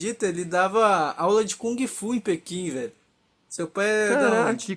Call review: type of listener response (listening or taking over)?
taking over